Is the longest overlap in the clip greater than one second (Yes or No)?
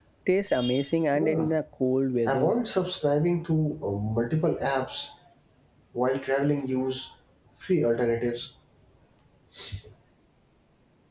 No